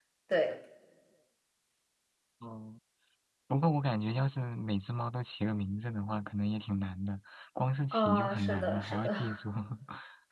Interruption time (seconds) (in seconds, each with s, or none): 7.9 s